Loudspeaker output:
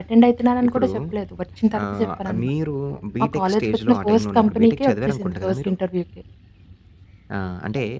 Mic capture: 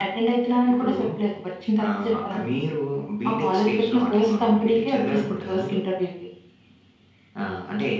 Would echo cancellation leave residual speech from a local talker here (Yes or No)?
No